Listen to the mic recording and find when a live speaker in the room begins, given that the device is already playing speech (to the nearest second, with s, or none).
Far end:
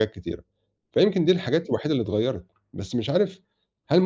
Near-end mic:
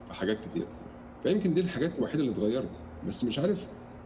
none